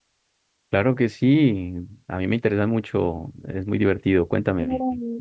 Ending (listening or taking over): taking over